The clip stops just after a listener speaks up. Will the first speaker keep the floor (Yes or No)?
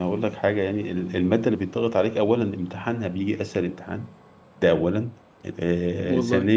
Yes